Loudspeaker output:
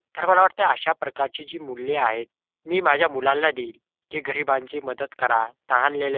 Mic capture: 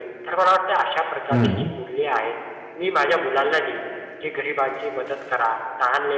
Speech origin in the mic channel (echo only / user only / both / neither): both